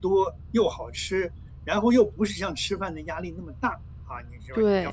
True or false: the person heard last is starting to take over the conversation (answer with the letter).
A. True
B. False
B